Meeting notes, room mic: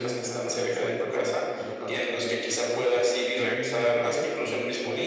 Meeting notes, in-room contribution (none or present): present